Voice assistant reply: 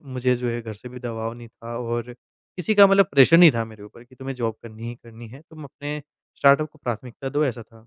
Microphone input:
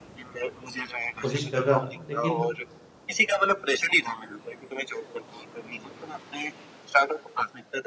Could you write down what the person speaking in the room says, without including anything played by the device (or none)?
कोशिश कर रहा था। लेकिन